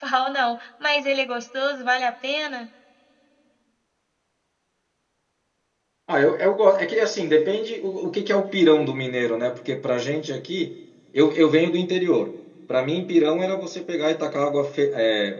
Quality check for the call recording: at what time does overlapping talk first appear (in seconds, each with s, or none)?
none